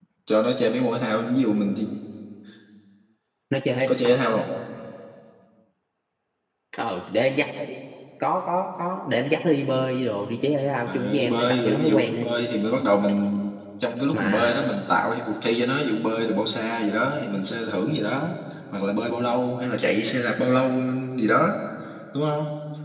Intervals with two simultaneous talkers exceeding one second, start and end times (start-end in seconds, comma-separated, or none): 10.8-12.3